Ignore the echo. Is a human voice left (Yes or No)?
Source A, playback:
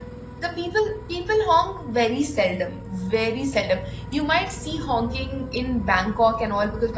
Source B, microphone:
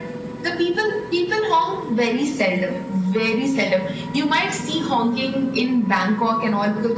No